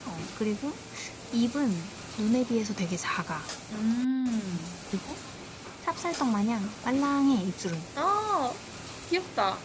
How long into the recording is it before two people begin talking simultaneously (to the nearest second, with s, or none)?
none